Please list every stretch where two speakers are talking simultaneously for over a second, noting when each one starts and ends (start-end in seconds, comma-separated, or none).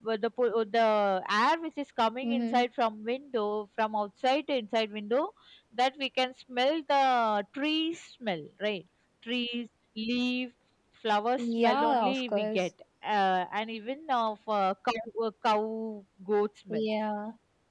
11.4-12.7